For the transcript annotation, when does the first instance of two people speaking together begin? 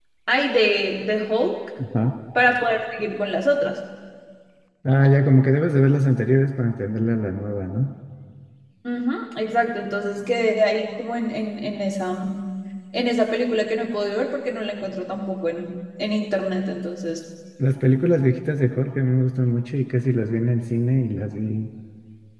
none

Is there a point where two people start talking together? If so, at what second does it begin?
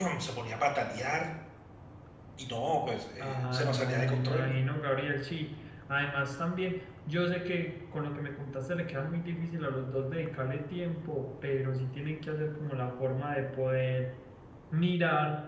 3.2 s

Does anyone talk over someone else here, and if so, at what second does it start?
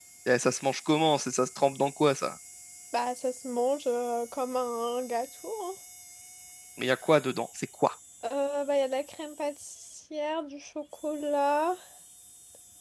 none

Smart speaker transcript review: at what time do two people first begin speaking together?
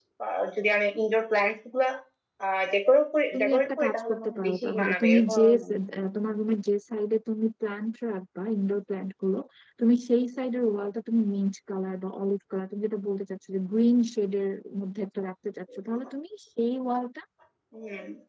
3.3 s

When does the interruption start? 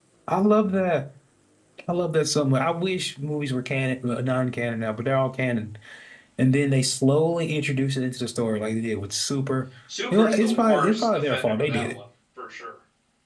10.1 s

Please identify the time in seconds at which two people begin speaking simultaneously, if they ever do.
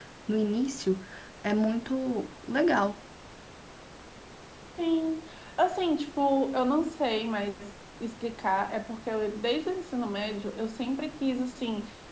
none

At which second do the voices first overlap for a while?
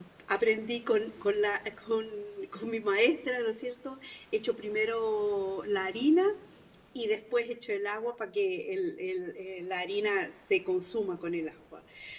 none

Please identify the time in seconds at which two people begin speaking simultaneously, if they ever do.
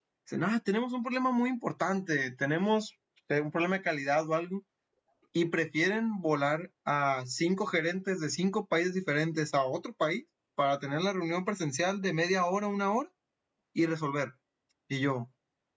none

